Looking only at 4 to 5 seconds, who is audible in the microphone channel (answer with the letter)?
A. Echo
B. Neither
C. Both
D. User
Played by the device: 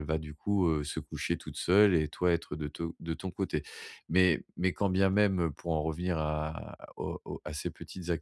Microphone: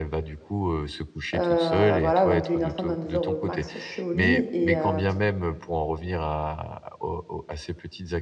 C